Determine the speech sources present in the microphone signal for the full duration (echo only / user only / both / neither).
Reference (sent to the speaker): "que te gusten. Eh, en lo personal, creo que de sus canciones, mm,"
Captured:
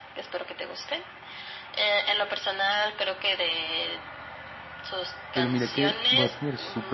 both